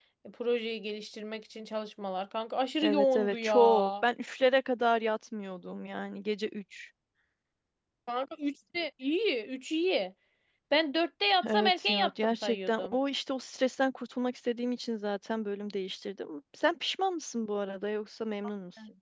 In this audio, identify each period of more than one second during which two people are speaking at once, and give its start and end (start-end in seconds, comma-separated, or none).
2.8-4.0, 11.5-13.0